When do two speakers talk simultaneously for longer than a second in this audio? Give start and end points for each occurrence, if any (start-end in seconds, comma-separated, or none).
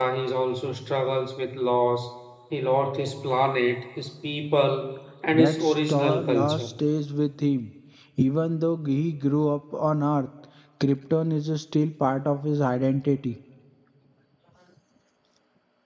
5.3-6.7